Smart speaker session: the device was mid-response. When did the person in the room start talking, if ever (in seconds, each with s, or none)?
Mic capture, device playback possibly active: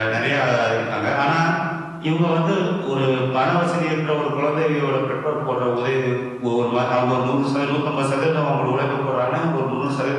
none